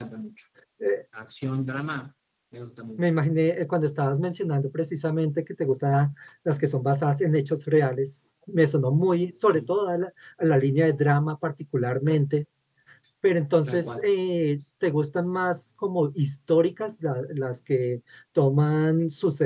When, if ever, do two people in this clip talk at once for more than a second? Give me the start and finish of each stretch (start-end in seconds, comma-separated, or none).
none